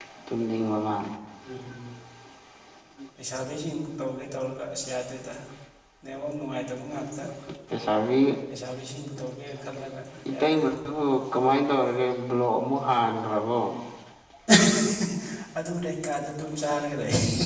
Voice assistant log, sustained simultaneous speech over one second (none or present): none